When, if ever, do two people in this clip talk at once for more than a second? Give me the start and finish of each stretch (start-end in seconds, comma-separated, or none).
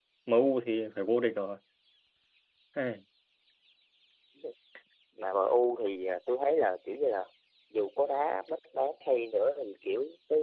none